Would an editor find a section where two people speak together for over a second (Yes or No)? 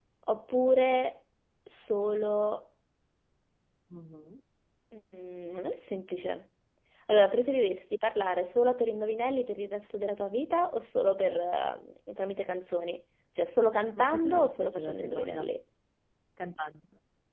Yes